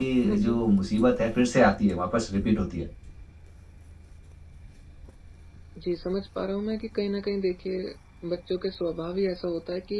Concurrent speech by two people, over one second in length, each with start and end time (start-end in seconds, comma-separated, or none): none